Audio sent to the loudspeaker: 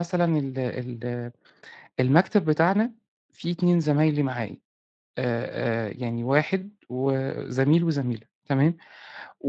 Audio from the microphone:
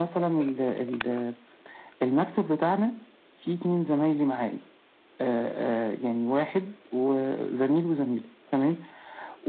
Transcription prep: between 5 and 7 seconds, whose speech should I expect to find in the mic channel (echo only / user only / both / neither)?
echo only